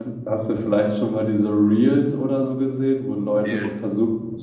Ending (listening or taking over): listening